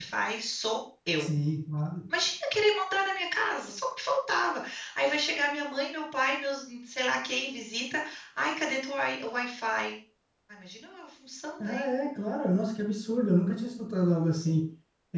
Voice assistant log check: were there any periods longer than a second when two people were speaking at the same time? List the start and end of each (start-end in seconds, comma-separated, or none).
none